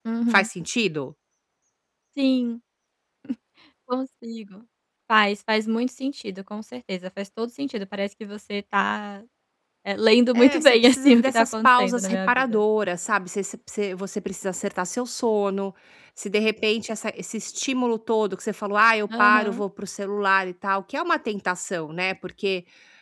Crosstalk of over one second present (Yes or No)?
Yes